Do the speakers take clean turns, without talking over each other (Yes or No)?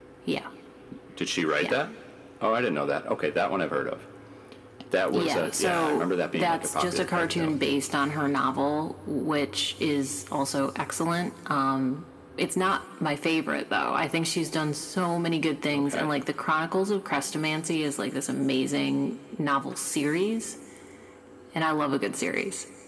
No